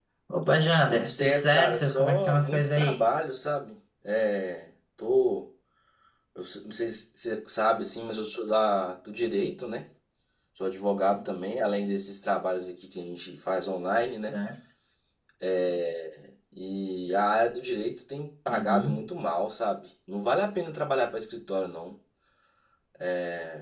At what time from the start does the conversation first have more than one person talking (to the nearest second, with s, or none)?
1 s